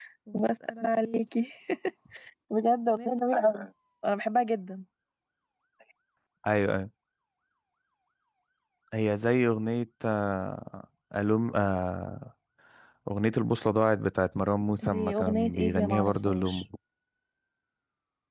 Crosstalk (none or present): present